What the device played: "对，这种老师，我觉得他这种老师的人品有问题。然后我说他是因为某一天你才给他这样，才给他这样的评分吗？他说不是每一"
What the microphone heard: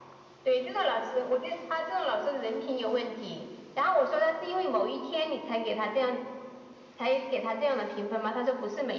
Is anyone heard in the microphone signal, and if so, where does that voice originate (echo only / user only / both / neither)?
echo only